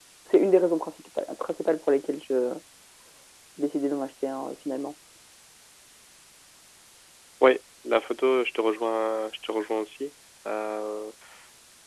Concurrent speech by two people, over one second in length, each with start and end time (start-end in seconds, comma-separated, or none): none